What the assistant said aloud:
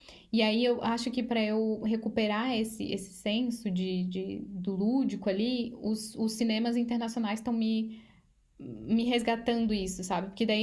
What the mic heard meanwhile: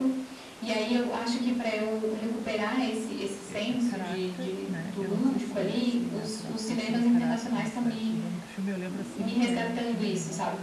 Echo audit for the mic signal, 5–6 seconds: both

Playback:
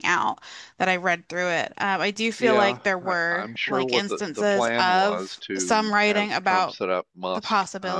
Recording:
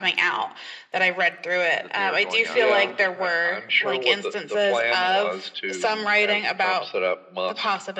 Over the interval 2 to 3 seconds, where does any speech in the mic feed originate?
both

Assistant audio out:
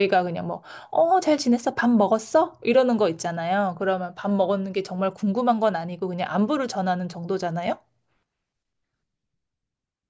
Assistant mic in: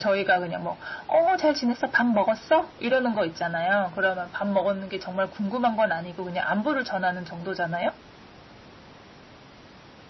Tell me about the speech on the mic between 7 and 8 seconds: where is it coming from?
echo only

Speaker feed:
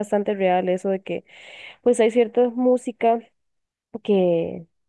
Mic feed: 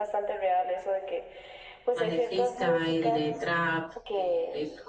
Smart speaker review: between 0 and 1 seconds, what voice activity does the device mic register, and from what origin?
echo only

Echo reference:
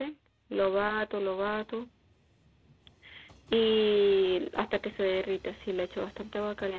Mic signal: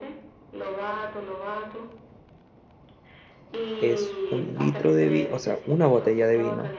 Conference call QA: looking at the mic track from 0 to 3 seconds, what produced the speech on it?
echo only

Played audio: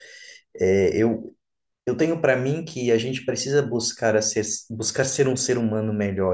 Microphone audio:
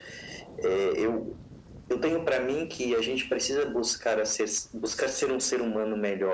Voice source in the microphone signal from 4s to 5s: echo only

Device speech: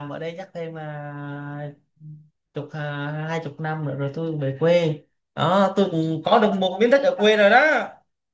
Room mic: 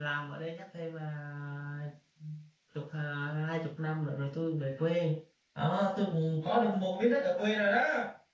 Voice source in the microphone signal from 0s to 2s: echo only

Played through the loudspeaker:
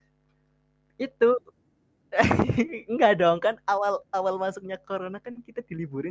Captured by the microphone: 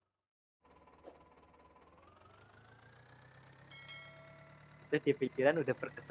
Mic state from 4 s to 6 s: user only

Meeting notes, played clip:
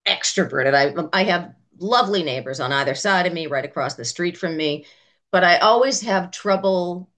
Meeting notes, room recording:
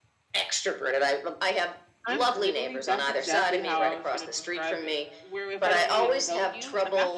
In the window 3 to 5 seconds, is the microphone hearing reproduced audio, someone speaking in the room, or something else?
both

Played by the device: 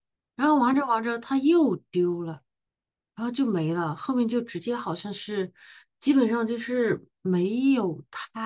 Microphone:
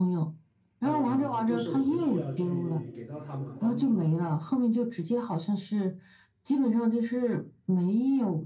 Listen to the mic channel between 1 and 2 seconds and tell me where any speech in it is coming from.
both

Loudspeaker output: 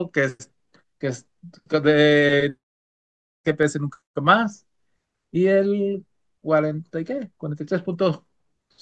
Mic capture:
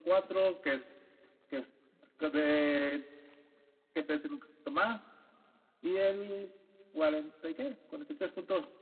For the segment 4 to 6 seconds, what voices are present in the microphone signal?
echo only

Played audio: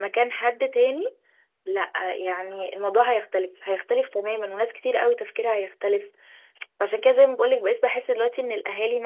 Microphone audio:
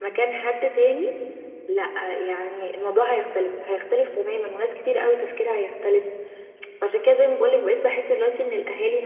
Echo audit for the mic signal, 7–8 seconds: echo only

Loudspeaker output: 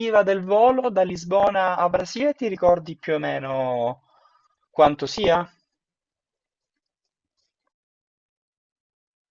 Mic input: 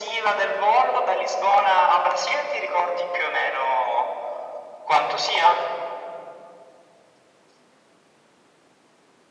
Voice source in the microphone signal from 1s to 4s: echo only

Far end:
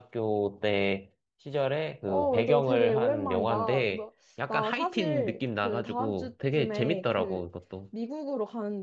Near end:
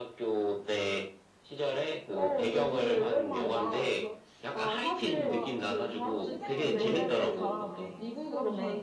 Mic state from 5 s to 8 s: both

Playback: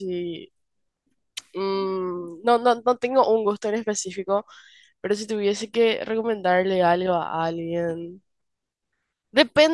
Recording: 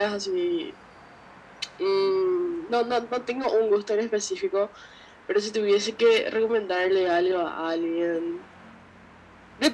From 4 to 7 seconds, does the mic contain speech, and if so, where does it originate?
echo only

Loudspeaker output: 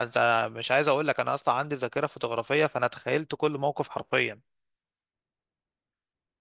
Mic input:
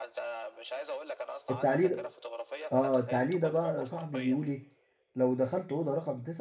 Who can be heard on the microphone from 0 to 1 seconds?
echo only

